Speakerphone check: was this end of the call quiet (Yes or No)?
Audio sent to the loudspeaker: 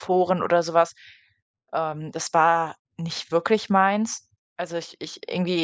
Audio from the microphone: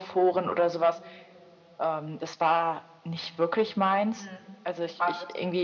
No